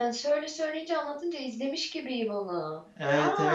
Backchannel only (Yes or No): No